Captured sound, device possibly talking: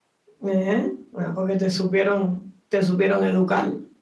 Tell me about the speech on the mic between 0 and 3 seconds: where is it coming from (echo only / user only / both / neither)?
user only